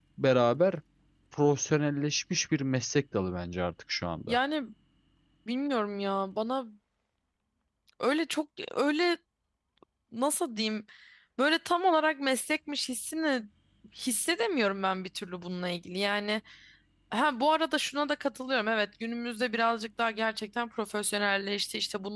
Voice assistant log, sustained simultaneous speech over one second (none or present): none